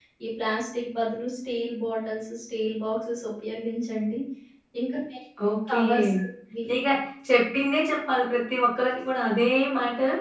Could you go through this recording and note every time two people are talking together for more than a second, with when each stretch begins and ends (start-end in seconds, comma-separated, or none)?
none